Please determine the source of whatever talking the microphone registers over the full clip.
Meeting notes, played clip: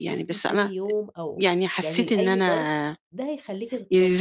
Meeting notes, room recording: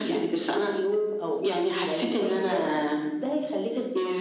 echo only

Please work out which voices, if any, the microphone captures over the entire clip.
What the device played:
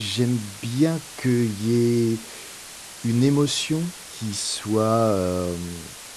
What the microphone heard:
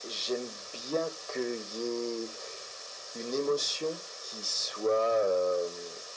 echo only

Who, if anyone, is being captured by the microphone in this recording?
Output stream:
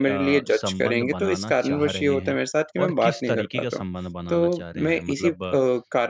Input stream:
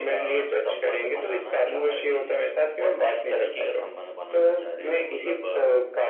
echo only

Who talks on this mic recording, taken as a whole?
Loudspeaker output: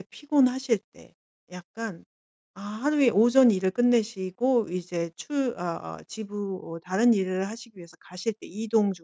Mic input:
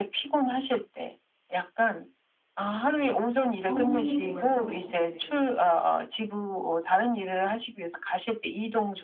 both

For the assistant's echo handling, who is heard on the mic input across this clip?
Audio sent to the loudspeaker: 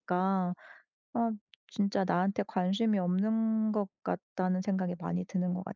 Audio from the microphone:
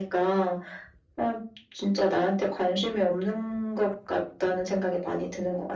echo only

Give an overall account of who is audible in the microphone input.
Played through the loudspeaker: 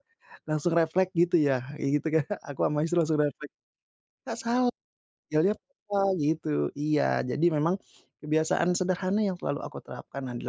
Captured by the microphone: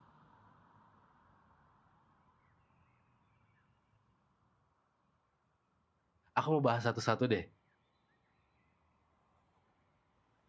user only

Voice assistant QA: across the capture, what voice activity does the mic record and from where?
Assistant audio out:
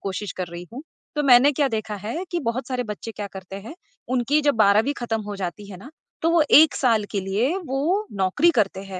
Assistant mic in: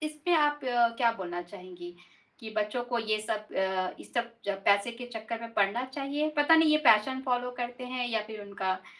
user only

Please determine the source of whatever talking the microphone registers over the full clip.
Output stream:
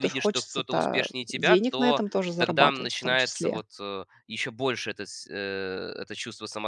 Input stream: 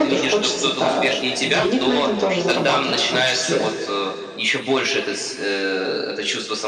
echo only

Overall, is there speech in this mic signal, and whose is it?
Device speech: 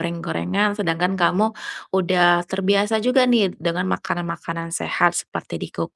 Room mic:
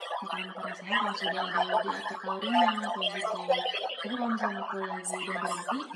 both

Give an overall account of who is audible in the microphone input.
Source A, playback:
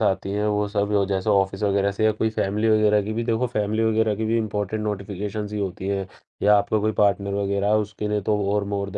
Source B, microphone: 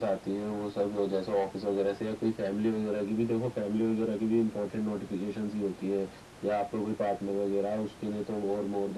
echo only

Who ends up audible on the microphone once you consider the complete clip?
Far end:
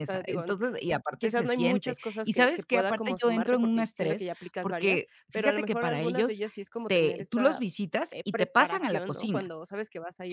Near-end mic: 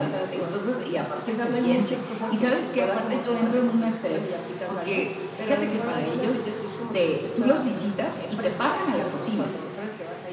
echo only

